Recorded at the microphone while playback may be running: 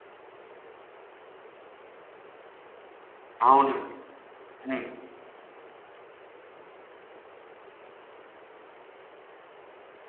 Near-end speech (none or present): present